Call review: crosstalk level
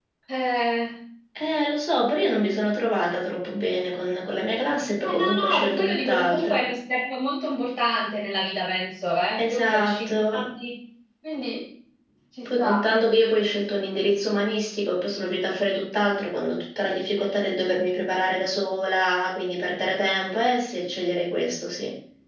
present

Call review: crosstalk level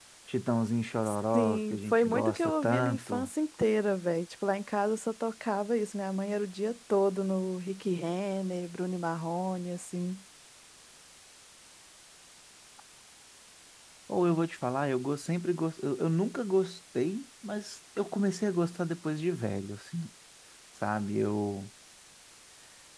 present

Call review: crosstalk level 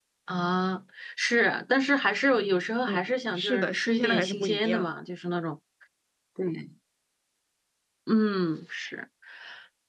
present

